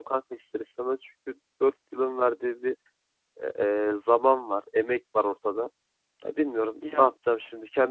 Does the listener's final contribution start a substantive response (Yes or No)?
No